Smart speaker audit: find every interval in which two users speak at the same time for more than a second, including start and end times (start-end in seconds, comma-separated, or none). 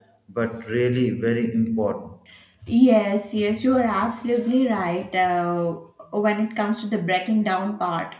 none